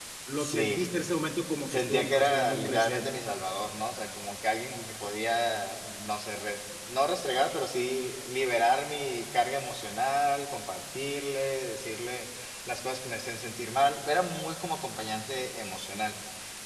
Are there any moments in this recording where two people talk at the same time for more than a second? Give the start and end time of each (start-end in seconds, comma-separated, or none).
1.7-3.2